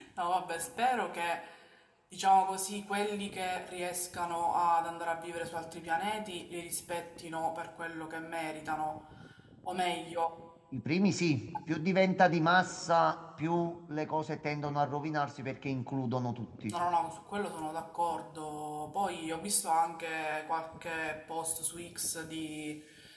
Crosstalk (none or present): none